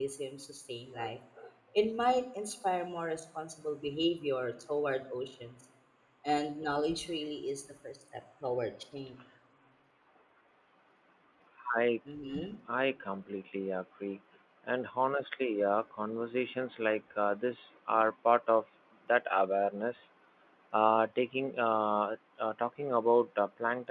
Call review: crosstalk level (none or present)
none